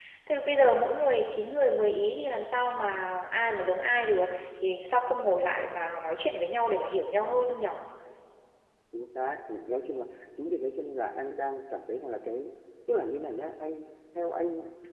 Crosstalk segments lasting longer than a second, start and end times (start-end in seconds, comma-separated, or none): none